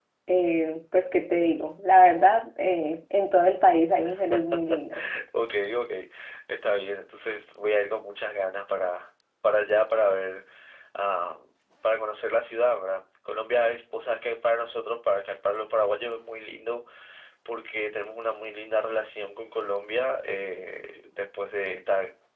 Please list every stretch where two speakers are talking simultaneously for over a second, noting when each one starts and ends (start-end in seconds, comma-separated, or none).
none